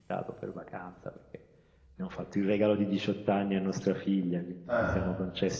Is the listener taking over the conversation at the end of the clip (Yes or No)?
No